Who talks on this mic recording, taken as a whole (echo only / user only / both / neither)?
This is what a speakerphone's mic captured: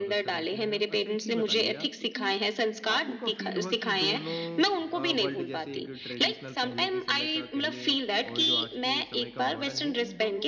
both